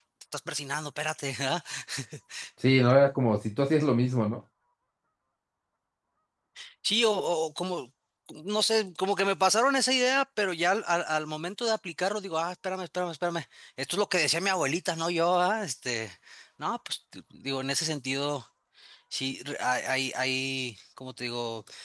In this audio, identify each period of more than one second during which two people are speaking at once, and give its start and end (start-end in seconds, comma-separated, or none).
none